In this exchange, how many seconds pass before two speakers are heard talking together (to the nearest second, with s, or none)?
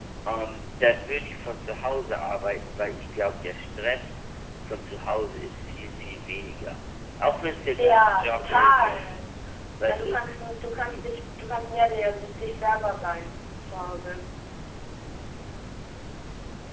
8 s